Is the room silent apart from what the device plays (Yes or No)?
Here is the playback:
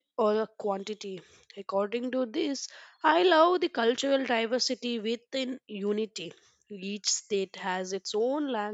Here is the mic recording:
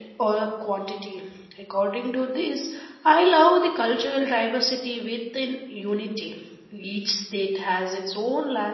Yes